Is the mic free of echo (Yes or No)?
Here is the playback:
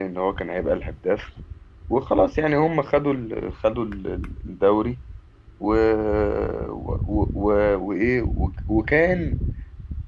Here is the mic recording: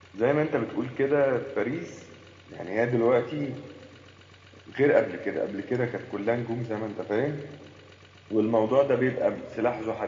Yes